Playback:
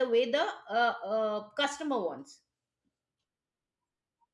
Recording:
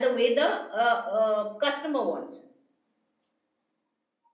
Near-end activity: none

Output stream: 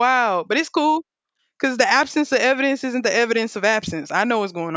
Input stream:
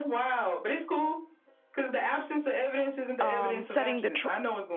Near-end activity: present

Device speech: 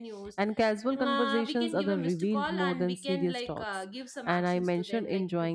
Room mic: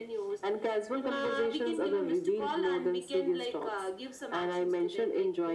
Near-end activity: none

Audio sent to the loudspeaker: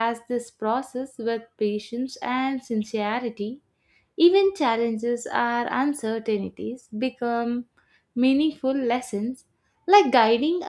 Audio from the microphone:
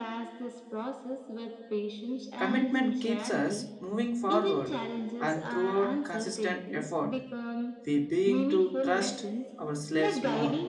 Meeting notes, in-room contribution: present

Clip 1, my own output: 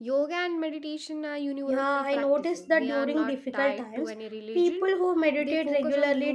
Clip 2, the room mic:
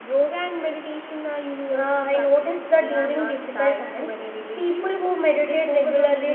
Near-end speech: none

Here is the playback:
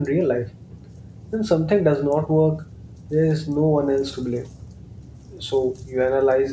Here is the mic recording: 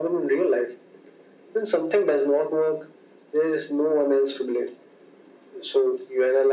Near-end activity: none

